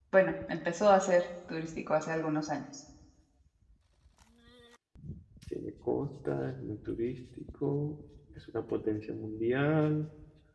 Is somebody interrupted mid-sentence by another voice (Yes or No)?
No